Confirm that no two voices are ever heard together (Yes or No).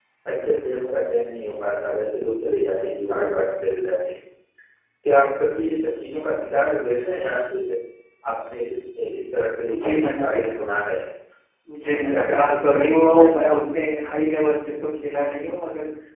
No